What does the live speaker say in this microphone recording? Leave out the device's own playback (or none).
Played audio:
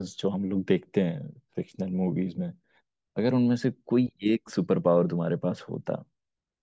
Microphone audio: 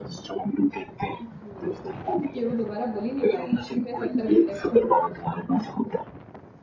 हम्म, कि वो दोबारा बोल ही नहीं पाएगा कि मैं सत्तर घंटे काम करता